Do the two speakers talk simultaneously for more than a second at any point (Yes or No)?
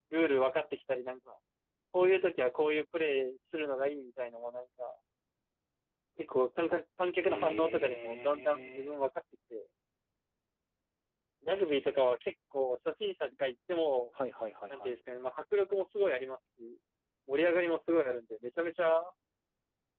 Yes